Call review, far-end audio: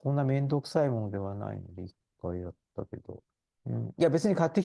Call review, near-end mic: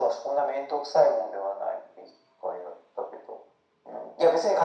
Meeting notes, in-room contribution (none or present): none